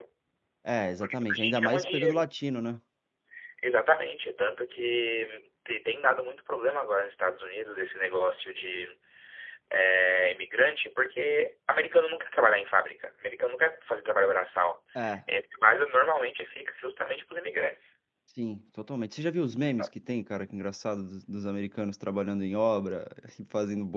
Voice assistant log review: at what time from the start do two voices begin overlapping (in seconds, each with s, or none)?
1.0 s